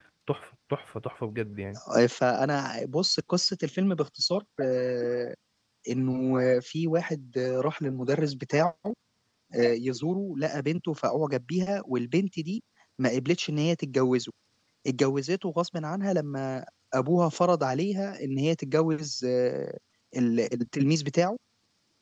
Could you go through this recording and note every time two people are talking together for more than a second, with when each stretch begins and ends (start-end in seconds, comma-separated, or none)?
none